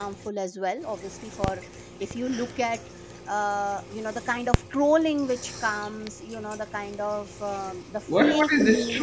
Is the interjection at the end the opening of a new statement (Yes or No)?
Yes